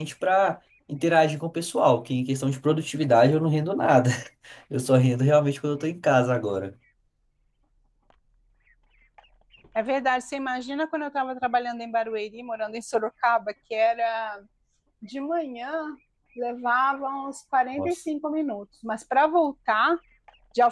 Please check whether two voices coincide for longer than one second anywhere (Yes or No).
No